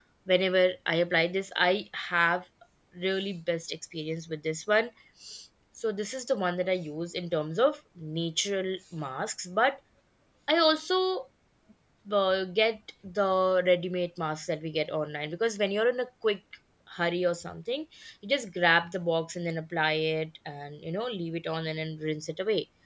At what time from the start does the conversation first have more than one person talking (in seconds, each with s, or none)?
none